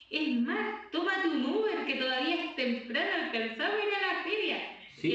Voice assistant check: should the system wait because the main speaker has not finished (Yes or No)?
Yes